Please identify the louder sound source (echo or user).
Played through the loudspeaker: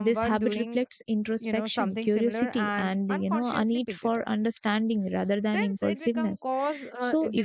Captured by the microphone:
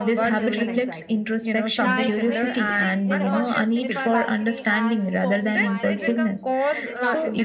echo